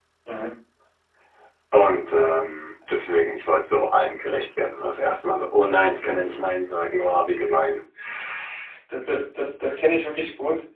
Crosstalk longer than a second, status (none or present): none